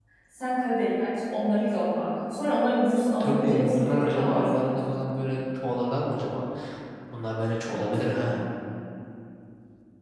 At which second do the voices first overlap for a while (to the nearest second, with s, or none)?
3 s